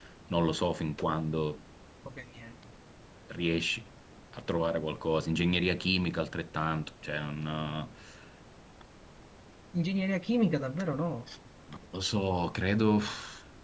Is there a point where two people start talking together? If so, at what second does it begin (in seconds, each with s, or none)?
none